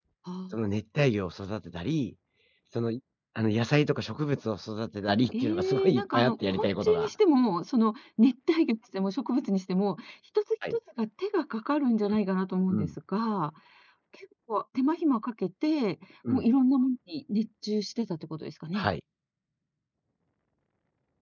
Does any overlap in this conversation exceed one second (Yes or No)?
Yes